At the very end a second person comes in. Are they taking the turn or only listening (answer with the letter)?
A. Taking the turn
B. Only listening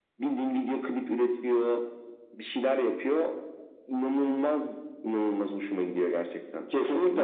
A